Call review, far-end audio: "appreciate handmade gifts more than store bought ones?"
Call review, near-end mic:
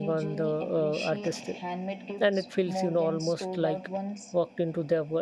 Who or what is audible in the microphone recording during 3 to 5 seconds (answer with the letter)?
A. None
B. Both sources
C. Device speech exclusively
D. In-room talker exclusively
B